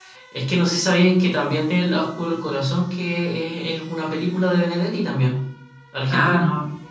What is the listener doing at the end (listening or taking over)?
taking over